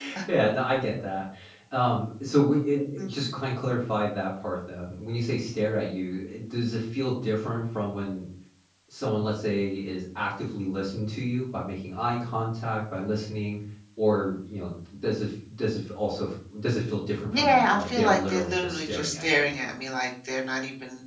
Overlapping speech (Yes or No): Yes